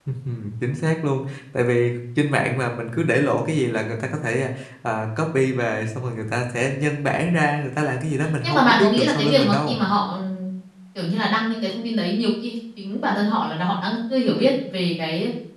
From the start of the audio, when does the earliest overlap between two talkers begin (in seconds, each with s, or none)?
8.4 s